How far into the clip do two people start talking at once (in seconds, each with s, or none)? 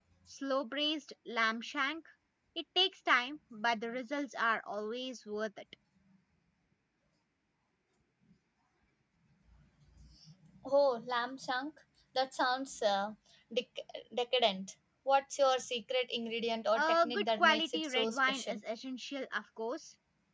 16.7 s